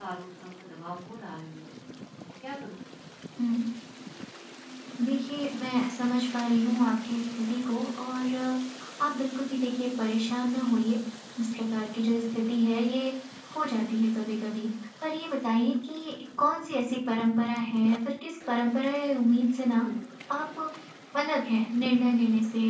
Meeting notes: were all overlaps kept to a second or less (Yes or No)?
Yes